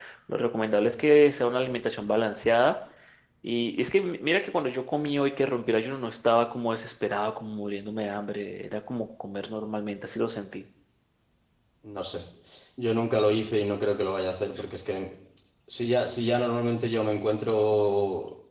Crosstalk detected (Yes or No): No